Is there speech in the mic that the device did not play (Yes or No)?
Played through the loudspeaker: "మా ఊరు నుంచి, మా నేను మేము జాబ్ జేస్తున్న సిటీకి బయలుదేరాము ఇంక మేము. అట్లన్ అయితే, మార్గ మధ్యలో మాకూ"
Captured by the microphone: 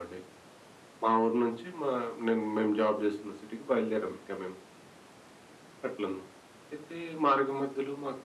No